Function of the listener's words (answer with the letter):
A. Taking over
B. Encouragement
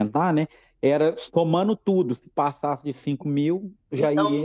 A